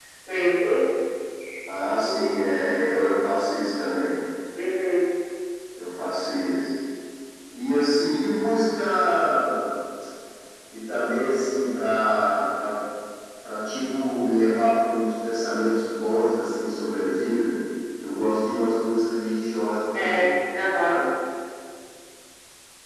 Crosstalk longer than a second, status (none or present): none